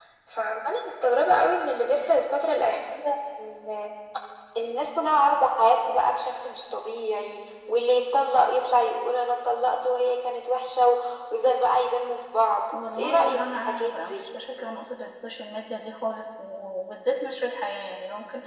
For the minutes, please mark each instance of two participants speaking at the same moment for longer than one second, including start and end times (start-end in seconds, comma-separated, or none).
12.8-14.2